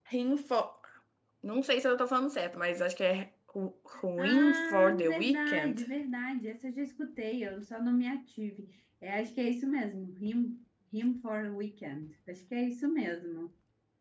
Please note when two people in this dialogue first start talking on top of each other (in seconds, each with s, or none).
4.2 s